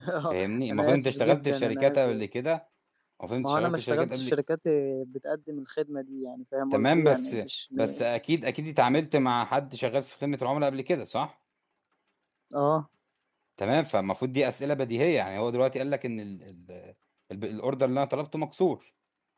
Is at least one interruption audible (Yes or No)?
Yes